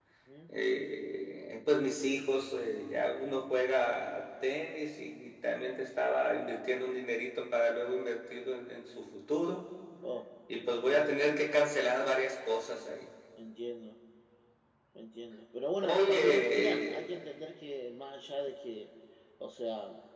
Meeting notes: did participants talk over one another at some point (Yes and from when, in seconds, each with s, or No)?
Yes, from 15.8 s